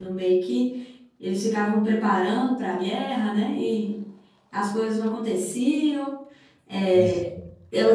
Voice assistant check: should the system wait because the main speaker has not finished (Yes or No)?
Yes